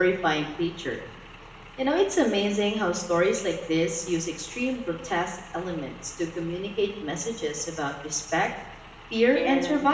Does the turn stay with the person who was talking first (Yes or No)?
No